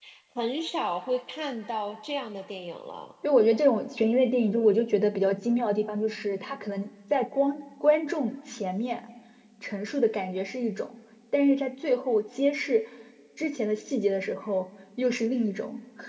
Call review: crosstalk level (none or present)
none